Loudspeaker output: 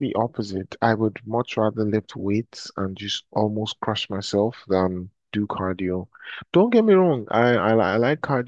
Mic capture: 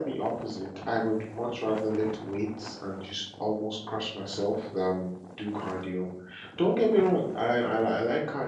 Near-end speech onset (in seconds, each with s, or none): none